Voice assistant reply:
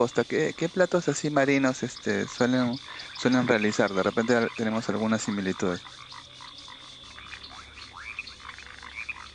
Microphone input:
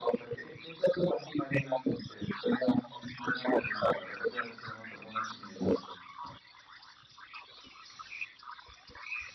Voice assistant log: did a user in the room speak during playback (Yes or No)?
No